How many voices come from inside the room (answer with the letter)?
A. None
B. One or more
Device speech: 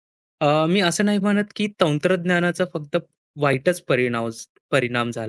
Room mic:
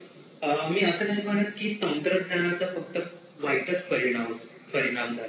A